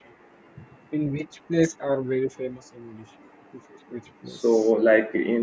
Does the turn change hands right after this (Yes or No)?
Yes